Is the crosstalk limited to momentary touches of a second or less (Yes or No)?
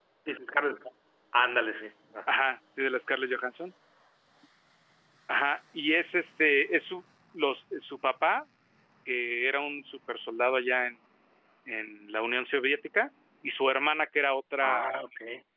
Yes